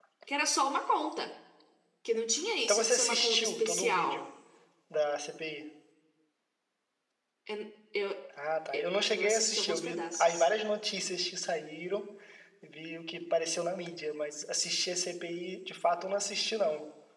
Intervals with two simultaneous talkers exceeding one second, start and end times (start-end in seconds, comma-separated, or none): 2.7-4.2, 9.1-10.5